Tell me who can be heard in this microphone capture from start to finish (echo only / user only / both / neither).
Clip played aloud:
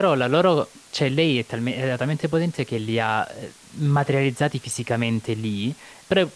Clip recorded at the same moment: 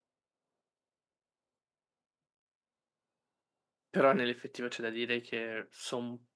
user only